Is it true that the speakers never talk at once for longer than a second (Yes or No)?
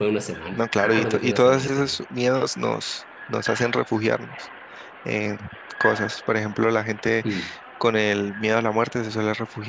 No